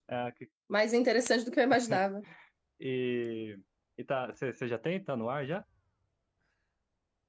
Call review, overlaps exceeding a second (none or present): none